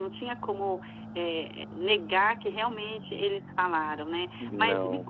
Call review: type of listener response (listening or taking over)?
listening